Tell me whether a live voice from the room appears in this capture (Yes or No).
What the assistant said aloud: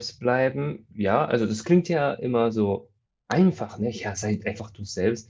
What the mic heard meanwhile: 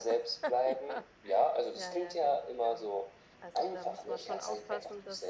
Yes